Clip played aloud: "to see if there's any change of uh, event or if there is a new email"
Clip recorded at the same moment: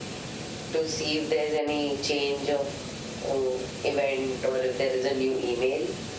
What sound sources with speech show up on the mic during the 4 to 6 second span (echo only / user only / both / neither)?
echo only